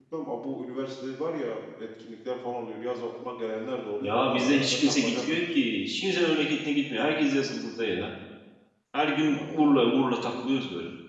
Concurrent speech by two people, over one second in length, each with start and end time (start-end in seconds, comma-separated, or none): 4.0-5.4